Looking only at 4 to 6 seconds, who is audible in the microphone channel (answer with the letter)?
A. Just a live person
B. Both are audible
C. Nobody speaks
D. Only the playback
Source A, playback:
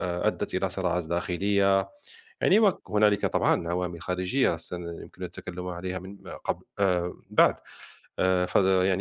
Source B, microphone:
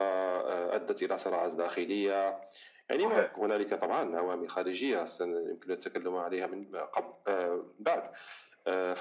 D